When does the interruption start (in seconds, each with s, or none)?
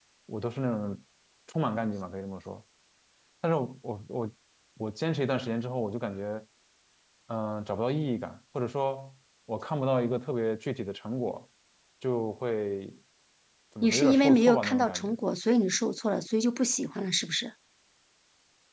13.8 s